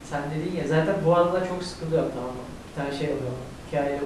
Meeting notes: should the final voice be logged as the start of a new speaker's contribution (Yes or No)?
No